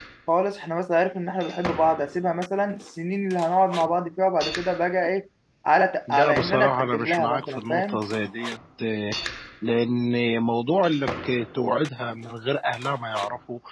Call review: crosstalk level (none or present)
present